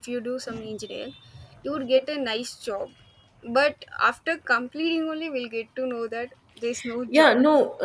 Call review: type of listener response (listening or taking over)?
taking over